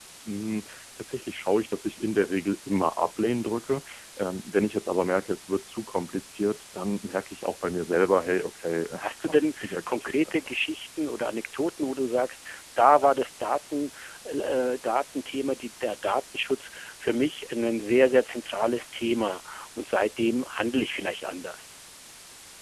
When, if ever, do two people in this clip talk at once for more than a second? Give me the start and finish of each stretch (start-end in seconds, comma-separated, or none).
9.0-10.3